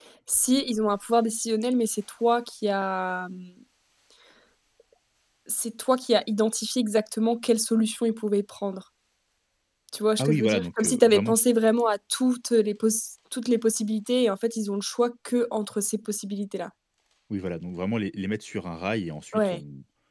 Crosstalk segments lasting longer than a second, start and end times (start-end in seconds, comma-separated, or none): 10.2-11.4